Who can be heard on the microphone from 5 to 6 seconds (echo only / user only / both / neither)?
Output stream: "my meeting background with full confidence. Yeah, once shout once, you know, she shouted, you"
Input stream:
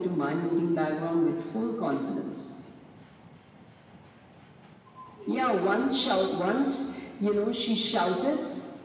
echo only